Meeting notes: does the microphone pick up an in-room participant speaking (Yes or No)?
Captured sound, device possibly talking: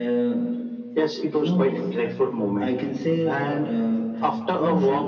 Yes